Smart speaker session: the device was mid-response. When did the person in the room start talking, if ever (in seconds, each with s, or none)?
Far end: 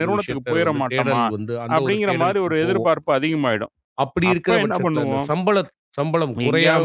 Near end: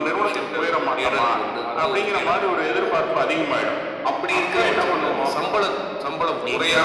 none